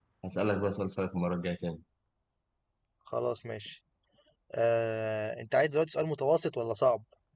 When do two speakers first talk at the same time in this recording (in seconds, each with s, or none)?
none